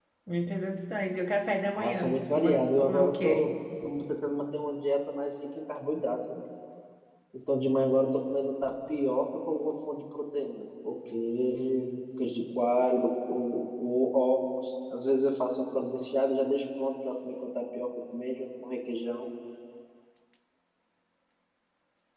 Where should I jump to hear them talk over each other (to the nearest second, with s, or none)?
2 s